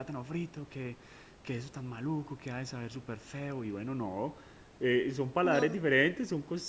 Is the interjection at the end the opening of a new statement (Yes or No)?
No